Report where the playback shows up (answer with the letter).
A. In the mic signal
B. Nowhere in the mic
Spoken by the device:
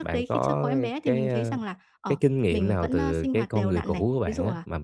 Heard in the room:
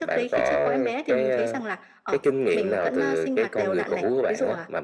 A